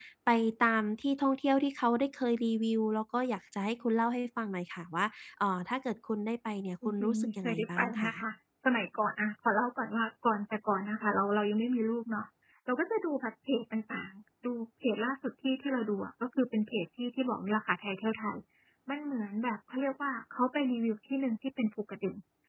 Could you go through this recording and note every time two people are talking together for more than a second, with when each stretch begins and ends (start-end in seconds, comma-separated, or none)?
6.8-8.1